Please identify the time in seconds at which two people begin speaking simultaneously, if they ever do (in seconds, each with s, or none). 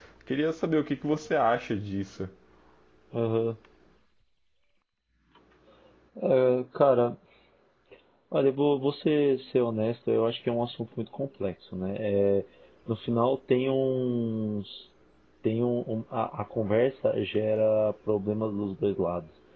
none